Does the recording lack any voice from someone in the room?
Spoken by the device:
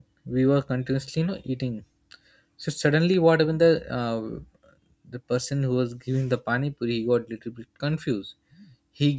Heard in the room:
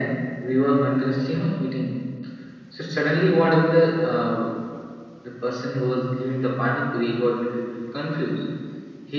Yes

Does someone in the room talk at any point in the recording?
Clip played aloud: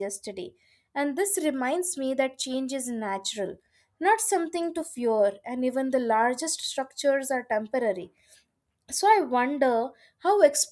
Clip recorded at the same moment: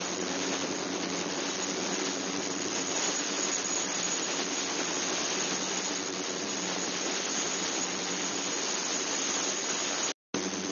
No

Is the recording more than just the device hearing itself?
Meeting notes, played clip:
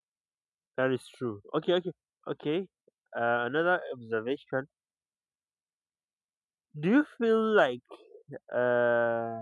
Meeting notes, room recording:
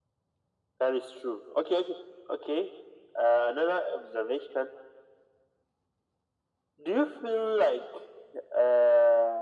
No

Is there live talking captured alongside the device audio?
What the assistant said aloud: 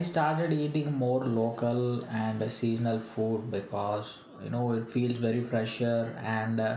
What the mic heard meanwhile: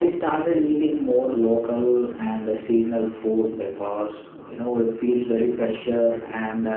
No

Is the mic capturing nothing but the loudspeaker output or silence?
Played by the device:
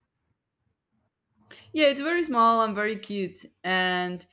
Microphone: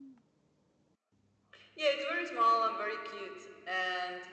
Yes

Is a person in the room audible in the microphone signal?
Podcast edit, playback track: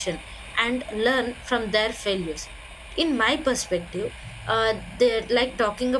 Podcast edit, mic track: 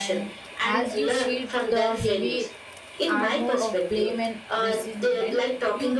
Yes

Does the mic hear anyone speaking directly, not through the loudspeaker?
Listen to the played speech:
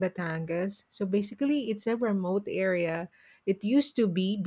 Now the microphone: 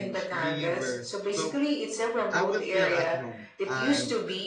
Yes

